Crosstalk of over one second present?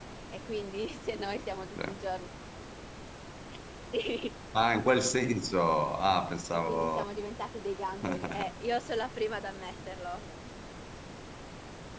No

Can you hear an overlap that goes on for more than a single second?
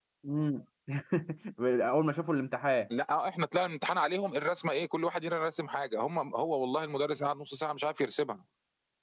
No

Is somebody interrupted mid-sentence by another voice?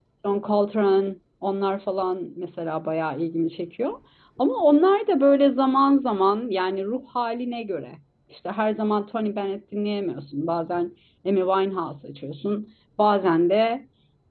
No

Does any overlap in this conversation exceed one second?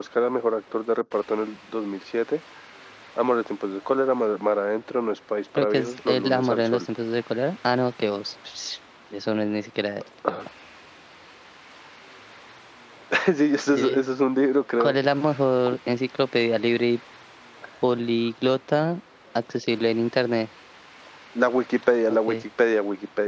Yes, from 5.6 s

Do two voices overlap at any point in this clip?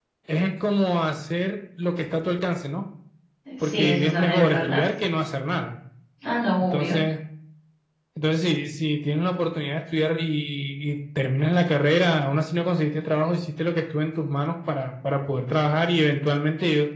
Yes, from 3.6 s

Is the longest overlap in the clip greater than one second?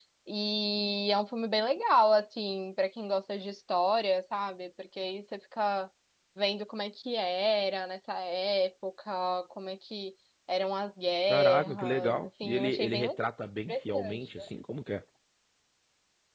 Yes, from 11.3 s

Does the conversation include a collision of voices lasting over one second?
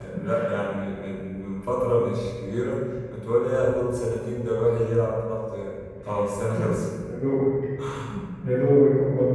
No

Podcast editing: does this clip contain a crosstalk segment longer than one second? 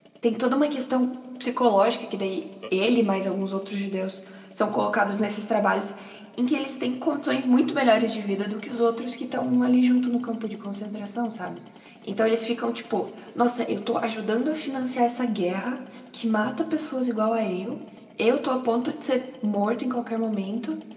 No

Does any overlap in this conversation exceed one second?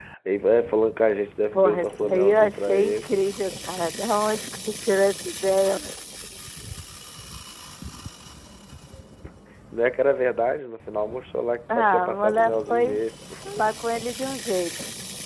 Yes, from 1.5 s

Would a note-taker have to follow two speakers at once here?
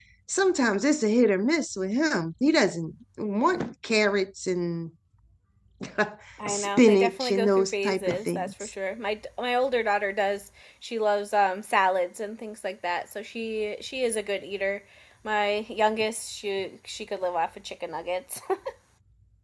Yes, from 6.5 s

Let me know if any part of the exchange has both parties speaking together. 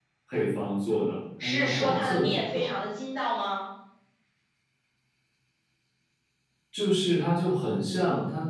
Yes, from 1.4 s

